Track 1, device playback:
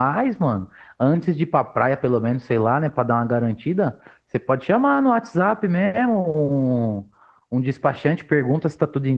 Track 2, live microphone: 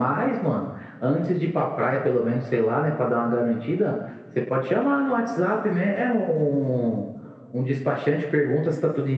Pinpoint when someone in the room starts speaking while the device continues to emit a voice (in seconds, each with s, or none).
none